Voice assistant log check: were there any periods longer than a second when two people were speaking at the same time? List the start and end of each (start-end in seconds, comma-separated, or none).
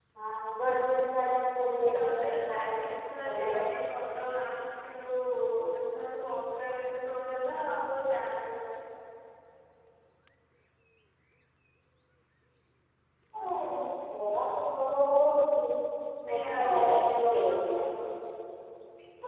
1.9-3.5, 16.3-17.9